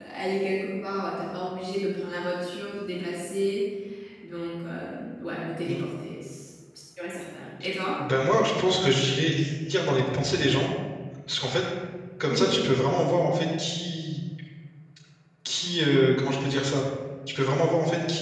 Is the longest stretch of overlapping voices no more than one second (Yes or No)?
Yes